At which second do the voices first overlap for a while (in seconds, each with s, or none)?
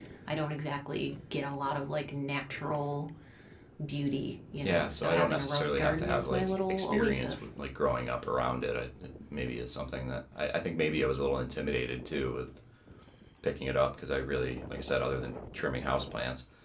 4.6 s